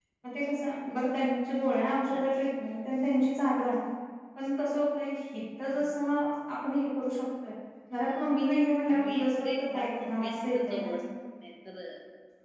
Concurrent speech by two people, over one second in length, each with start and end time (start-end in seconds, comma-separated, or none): 9.0-10.9